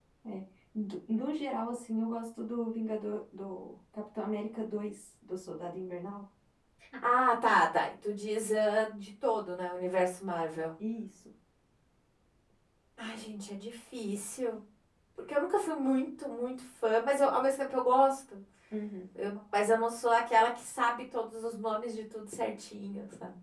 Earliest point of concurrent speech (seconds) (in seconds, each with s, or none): none